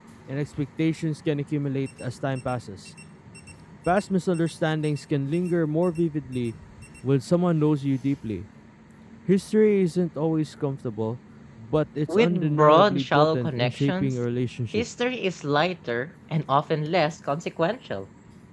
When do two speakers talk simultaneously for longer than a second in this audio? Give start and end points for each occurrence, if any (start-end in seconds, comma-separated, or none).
12.1-14.1